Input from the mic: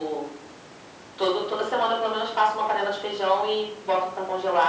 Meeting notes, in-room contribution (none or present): none